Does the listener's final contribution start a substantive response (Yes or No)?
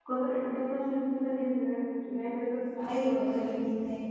Yes